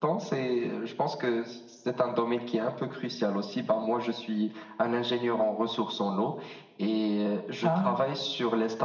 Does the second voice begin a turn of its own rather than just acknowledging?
No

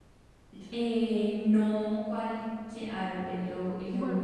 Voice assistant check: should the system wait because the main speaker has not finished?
No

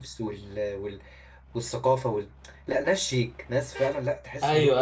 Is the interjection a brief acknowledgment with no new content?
No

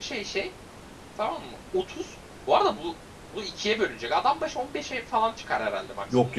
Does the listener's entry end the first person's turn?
Yes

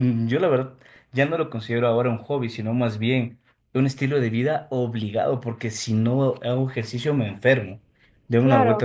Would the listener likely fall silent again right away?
Yes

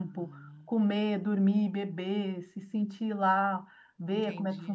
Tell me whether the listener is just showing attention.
No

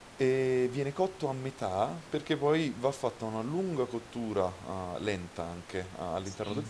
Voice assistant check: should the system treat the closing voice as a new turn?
Yes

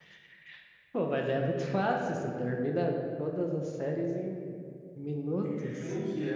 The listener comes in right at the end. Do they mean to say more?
Yes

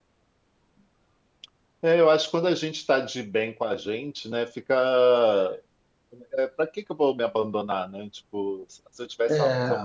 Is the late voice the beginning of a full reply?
No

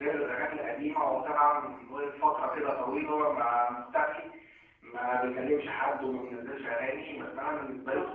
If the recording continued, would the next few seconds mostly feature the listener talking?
Yes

